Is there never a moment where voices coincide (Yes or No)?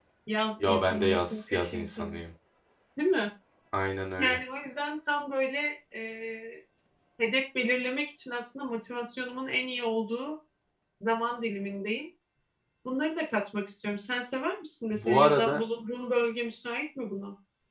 No